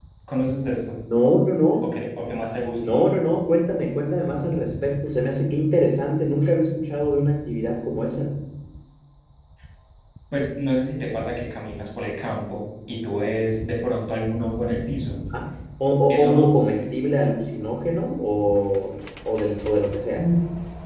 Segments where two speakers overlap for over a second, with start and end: none

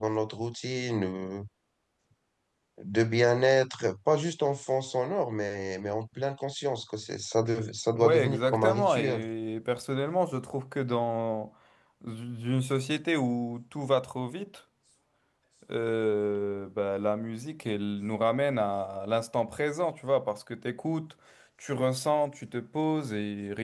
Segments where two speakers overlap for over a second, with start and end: 8.0-9.2

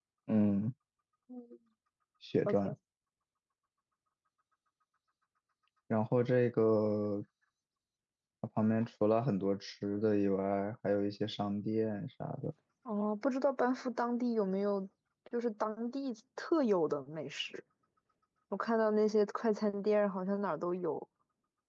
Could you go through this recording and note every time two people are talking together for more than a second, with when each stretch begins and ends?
none

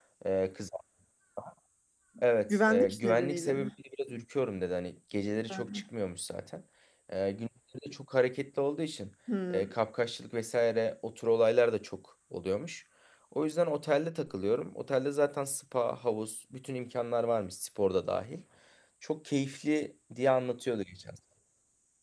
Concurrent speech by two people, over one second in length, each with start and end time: 2.5-3.7

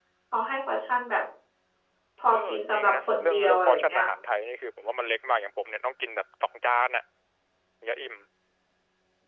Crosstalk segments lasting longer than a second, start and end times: 2.3-4.0

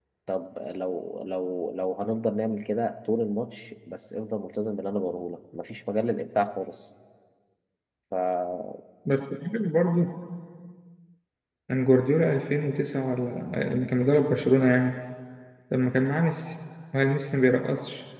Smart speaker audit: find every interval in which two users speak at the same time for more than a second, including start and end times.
none

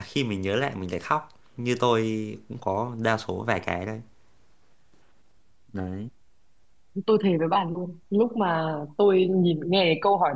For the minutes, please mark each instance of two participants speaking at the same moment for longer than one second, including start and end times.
none

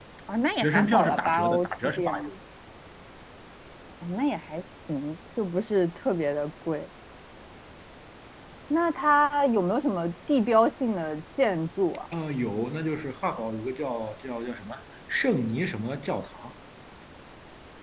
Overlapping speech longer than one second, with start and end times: 0.6-2.3

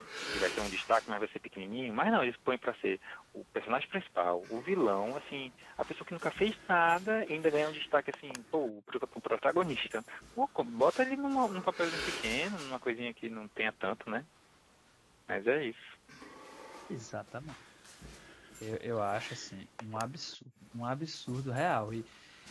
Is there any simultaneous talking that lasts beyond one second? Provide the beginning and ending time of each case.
none

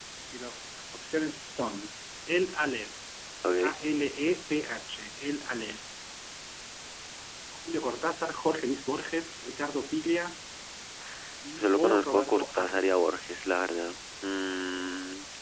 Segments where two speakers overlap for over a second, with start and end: 11.6-12.8

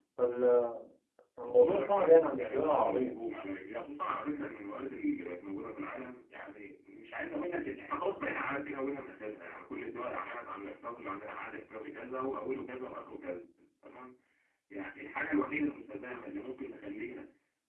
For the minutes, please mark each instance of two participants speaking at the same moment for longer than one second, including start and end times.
1.4-3.2

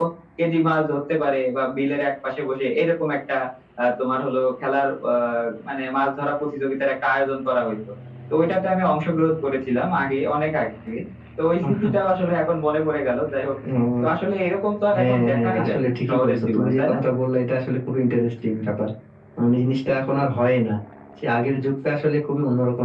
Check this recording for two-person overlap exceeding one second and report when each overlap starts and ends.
14.9-17.0

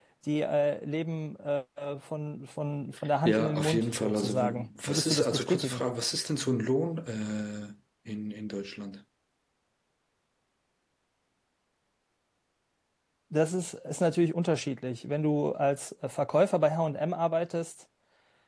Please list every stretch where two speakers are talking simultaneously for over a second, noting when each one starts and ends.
3.2-5.8

